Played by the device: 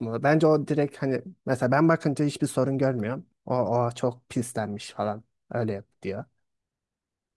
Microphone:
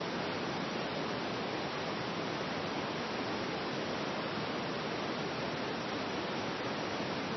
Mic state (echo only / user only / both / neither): neither